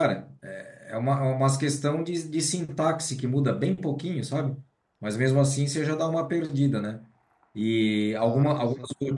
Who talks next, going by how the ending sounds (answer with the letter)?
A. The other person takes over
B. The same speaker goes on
B